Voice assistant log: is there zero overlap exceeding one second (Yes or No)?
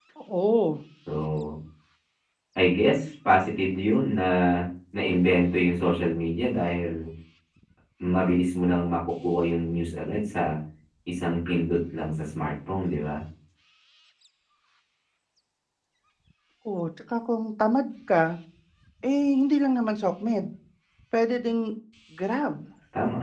Yes